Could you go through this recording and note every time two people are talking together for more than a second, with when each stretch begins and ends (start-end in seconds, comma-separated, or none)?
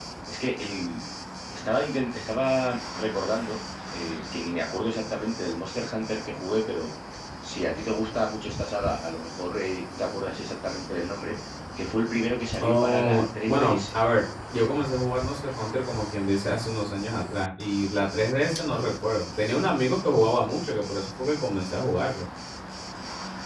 12.6-13.9